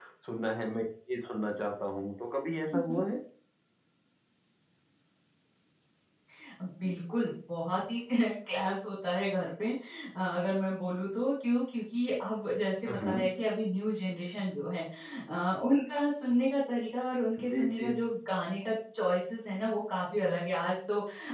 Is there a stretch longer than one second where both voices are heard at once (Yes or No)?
No